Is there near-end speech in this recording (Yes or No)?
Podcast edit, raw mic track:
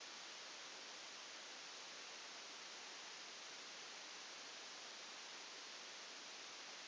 No